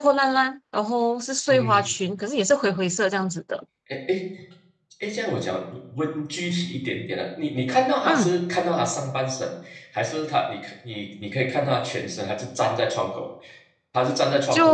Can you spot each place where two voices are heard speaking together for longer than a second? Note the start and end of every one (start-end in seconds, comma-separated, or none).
none